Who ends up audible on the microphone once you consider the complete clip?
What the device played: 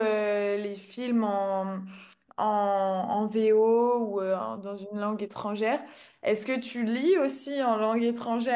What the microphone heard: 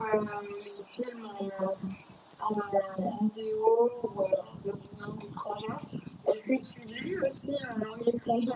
echo only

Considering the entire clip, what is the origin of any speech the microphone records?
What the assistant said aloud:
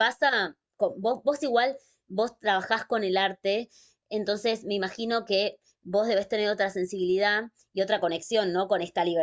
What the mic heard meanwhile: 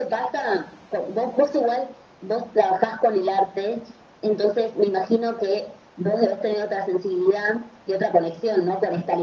echo only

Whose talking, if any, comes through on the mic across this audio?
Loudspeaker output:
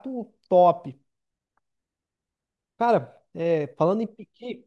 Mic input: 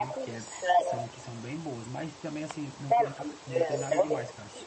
both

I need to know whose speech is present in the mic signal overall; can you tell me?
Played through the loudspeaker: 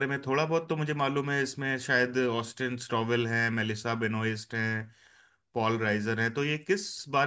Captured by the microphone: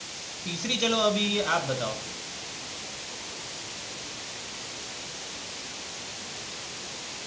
user only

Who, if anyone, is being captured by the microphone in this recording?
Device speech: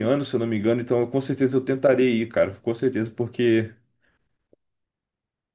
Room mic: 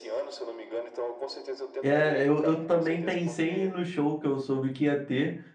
both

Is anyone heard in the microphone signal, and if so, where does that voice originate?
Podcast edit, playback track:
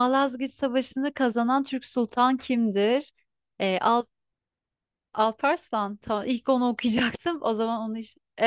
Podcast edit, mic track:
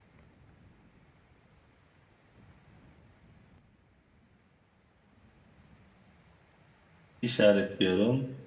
user only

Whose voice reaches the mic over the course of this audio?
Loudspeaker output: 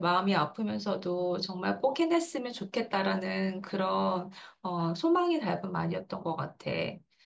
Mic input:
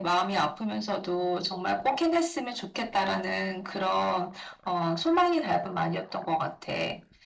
echo only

